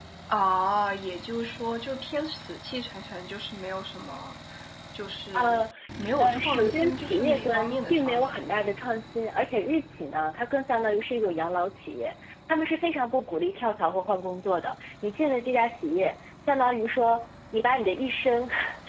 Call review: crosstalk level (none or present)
present